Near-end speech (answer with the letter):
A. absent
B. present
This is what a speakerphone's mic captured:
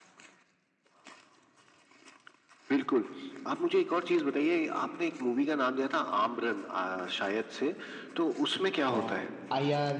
B